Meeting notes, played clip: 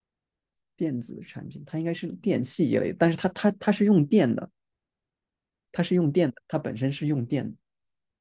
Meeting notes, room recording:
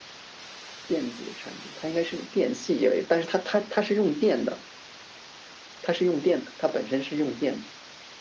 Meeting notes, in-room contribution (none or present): none